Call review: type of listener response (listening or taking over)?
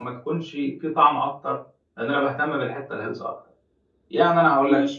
listening